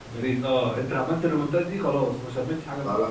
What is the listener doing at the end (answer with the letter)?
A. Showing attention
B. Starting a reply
B